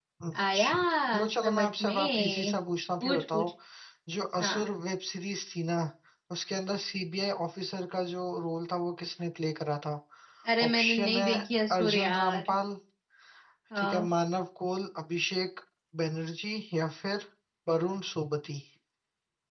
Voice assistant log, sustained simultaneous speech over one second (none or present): present